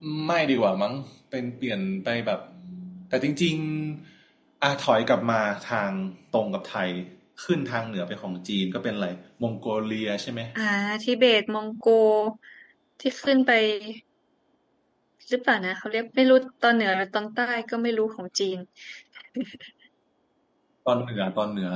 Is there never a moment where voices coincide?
Yes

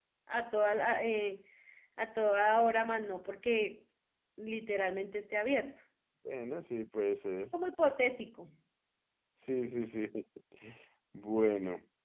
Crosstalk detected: No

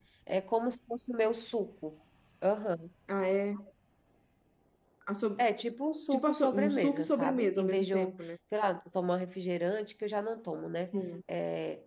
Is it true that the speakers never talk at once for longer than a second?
No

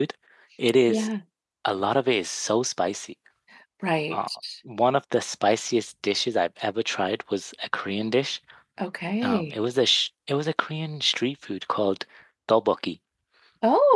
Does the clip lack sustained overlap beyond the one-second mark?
Yes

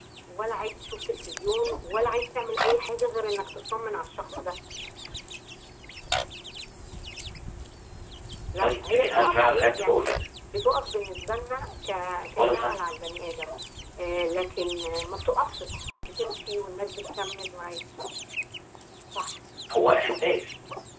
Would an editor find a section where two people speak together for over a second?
Yes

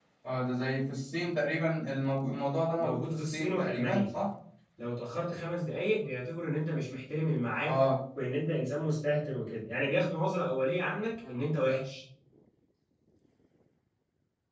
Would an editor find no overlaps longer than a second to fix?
No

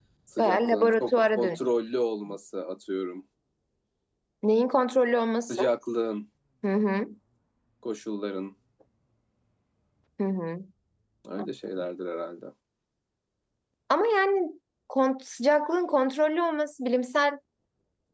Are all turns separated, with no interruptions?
No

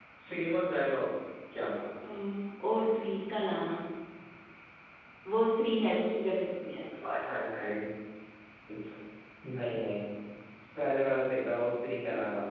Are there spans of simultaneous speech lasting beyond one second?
No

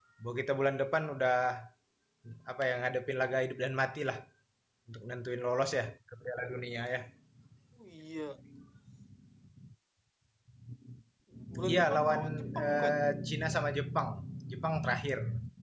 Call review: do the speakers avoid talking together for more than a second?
No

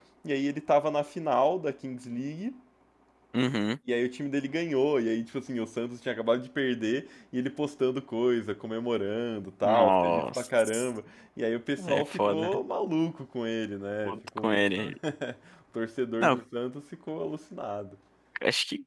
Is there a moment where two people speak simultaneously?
Yes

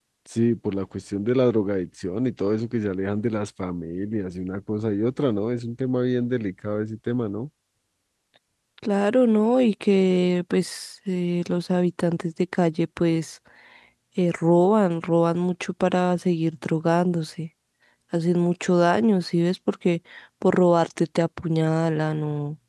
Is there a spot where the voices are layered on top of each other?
No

